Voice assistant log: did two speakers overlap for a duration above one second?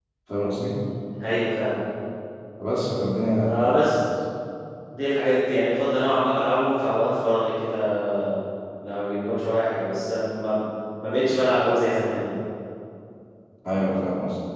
No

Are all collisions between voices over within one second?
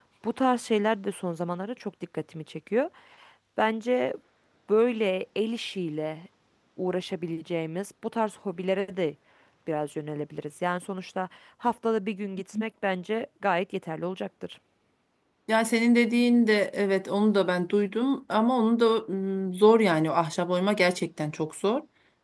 Yes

